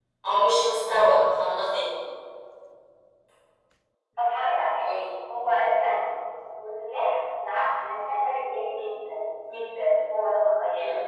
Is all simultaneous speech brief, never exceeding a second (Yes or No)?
Yes